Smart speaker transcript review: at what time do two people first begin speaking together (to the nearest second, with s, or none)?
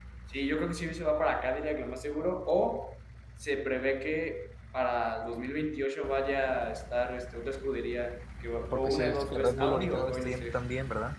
9 s